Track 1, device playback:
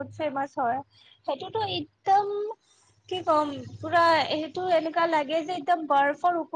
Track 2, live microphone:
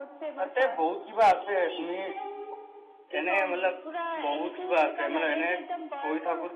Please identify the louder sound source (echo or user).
user